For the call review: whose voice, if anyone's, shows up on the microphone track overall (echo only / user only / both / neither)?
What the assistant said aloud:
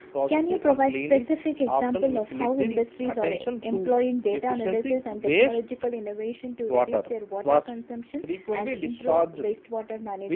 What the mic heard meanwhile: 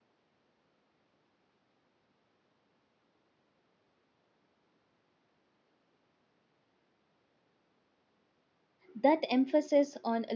user only